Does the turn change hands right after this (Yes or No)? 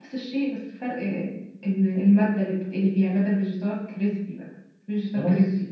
Yes